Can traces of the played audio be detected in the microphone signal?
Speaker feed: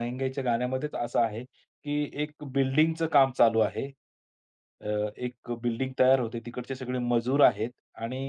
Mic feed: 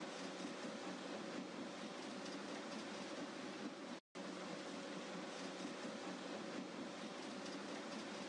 No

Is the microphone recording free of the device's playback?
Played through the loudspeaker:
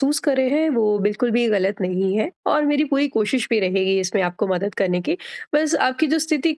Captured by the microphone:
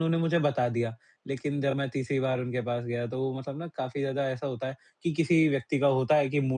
Yes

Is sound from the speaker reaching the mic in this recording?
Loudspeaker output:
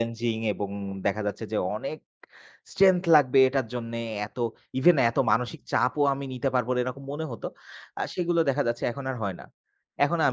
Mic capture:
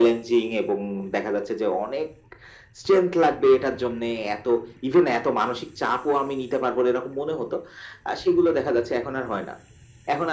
Yes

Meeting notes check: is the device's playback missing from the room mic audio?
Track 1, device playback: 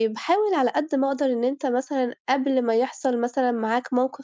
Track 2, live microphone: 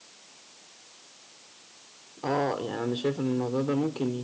Yes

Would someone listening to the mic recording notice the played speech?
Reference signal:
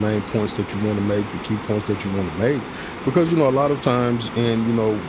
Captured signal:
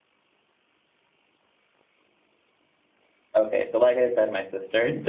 No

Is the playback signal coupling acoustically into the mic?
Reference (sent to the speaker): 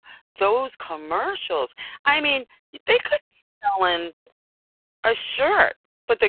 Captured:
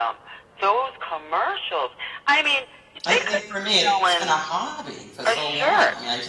Yes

